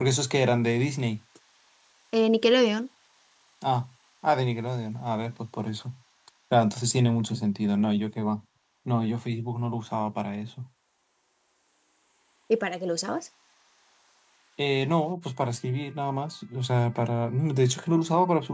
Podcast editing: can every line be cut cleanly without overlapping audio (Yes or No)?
Yes